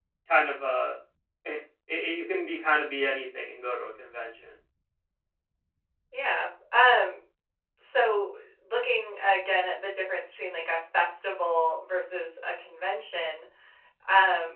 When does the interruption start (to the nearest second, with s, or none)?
none